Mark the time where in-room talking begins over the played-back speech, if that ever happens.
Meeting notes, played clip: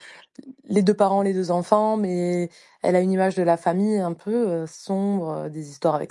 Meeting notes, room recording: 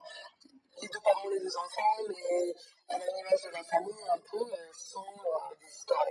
none

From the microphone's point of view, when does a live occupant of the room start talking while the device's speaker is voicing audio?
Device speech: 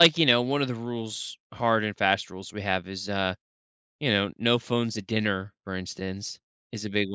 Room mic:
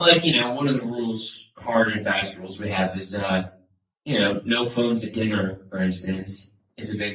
none

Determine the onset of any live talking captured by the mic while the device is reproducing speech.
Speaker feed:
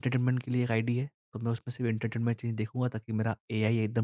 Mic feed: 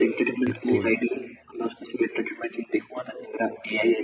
0 s

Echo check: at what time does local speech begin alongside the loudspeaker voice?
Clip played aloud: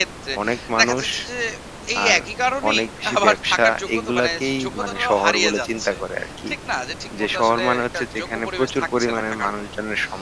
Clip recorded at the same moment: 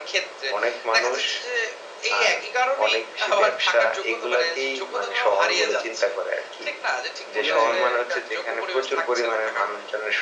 7 s

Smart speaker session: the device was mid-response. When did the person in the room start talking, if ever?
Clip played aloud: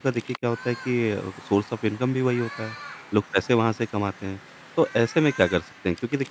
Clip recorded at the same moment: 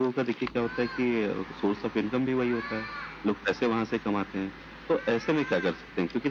none

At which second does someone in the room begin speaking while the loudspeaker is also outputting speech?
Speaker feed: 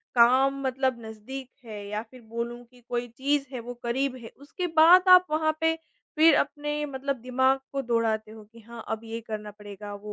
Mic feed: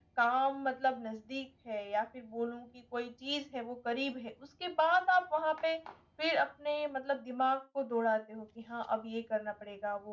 none

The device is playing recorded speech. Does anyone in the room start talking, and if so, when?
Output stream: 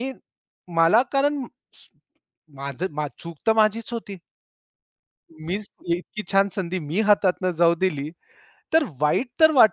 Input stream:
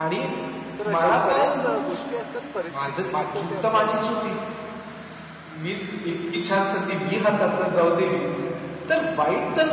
1 s

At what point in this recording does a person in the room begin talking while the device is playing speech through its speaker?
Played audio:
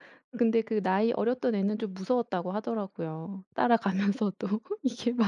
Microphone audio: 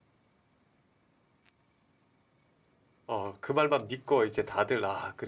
3 s

